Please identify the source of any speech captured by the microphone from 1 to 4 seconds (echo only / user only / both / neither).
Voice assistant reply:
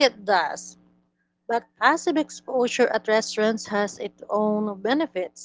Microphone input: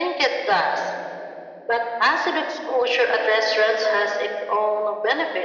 echo only